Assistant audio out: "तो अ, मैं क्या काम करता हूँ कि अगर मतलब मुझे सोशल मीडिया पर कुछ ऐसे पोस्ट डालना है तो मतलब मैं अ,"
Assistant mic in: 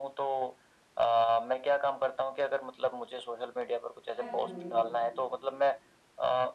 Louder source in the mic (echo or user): echo